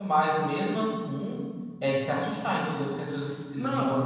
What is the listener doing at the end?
taking over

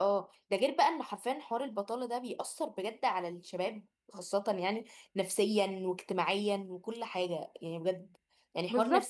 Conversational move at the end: listening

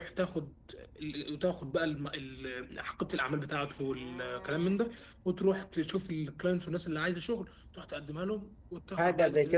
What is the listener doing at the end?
taking over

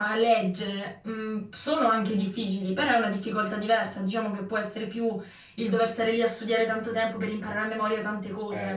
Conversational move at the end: taking over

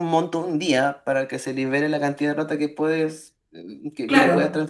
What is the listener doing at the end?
taking over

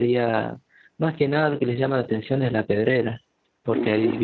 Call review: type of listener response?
listening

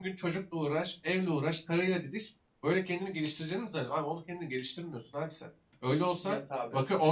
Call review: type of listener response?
listening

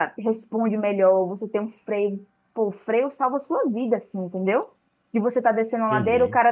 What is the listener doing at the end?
listening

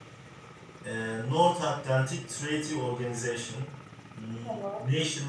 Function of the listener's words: listening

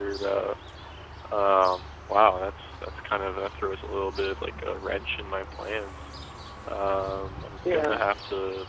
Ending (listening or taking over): listening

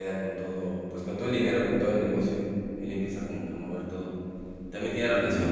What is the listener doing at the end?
listening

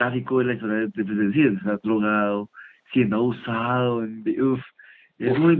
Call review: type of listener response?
taking over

